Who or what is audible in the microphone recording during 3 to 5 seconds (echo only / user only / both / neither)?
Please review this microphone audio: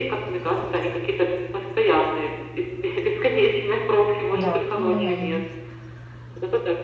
both